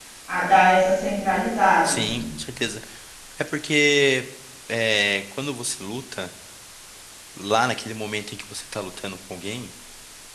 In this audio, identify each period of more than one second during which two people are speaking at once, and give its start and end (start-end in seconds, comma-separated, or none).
none